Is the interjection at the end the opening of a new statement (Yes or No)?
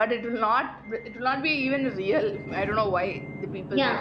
Yes